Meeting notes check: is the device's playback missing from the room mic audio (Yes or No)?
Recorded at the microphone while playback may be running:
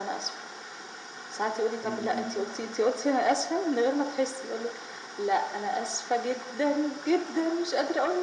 No